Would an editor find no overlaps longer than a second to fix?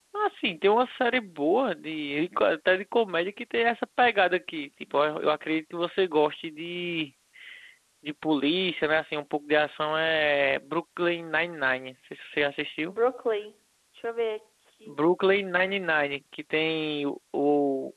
Yes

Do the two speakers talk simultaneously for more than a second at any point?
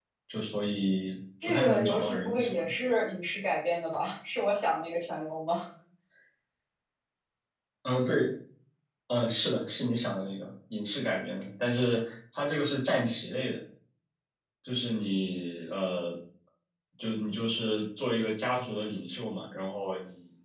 Yes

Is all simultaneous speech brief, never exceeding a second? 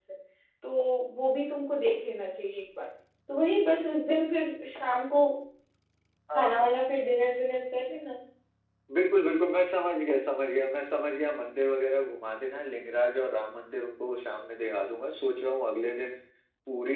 Yes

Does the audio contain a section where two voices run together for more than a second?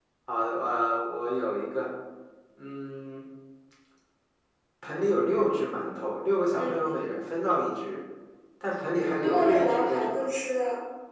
Yes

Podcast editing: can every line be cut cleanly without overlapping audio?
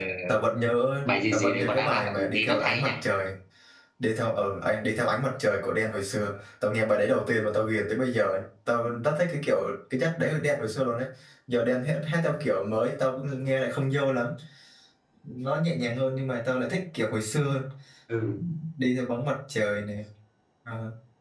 No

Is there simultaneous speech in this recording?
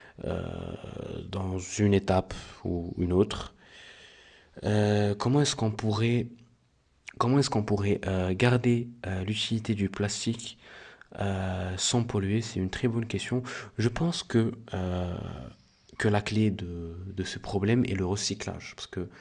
No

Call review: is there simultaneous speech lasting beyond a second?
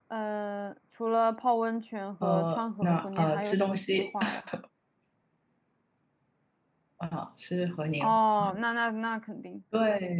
Yes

